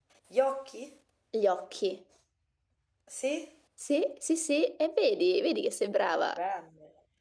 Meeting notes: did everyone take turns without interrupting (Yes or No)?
Yes